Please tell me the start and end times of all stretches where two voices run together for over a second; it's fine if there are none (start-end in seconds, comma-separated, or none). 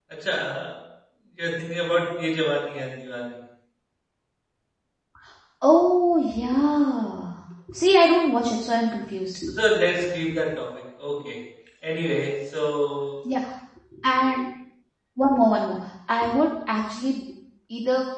none